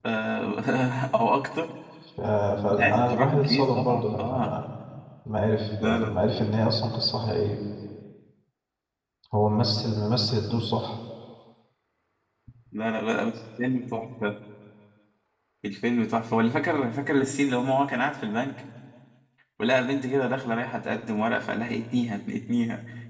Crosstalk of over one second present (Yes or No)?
Yes